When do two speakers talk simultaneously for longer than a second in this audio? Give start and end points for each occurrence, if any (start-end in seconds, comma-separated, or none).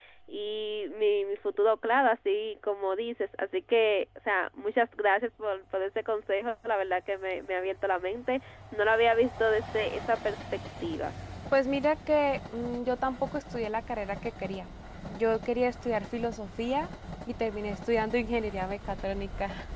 none